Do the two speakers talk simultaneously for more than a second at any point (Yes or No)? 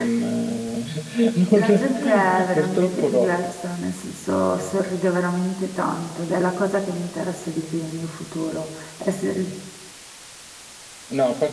Yes